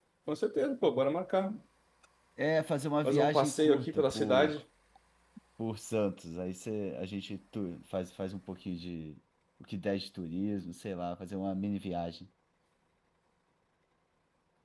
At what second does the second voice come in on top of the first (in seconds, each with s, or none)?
3.0 s